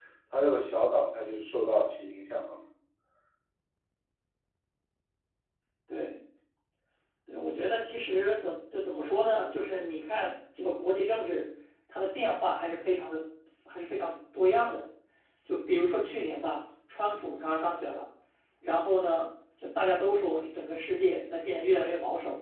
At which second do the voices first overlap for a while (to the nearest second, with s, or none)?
none